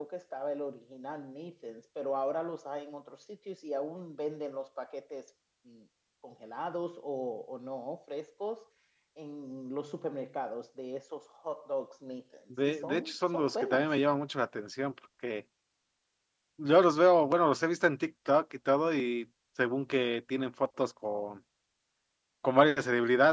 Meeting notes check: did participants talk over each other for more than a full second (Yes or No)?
Yes